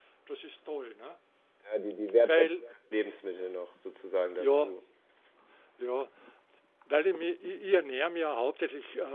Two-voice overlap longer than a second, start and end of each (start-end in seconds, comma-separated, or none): none